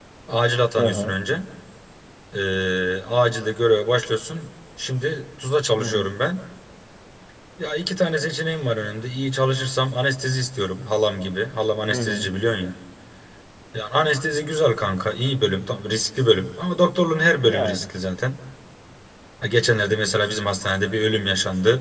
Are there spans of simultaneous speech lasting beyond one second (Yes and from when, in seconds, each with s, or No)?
No